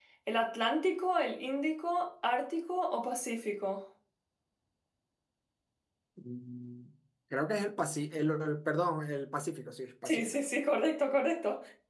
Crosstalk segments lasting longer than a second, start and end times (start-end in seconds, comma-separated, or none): none